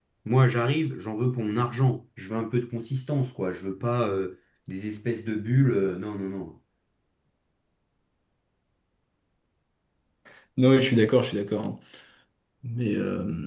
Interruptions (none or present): none